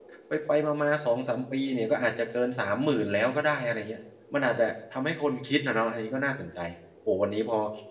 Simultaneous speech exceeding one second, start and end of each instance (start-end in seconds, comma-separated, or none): none